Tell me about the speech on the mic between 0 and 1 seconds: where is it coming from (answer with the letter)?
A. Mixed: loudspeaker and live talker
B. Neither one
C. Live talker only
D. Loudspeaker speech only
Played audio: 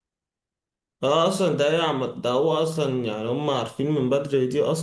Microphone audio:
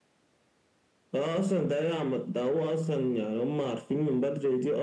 B